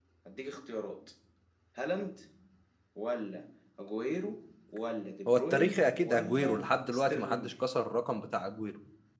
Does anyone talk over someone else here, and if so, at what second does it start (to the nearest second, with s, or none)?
5 s